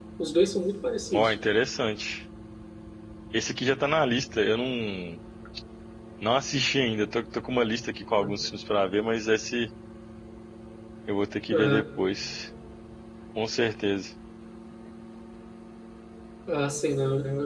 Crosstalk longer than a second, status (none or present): none